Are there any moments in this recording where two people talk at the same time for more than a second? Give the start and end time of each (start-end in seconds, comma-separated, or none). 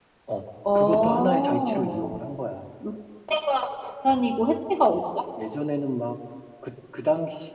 0.8-2.1